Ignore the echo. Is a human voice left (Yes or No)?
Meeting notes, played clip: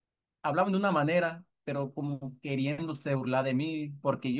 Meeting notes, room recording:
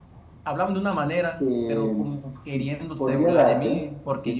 Yes